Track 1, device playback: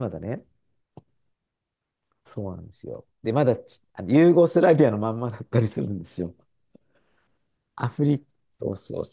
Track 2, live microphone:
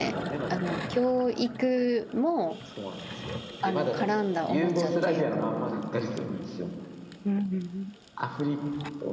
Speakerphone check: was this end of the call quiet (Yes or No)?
No